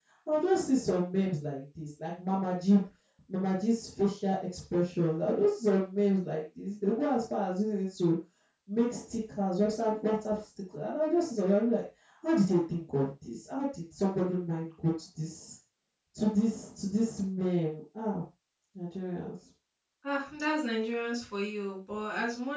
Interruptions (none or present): none